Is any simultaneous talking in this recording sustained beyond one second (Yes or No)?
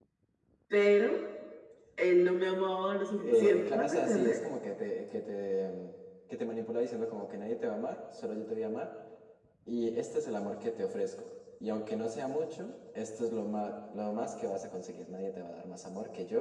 Yes